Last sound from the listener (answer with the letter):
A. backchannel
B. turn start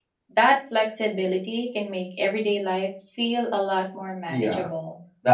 B